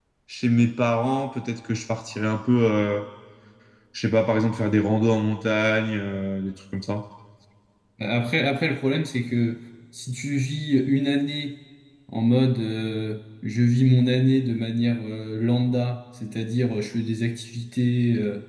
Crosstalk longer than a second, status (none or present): none